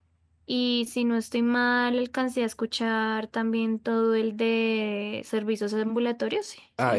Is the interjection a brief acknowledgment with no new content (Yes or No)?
No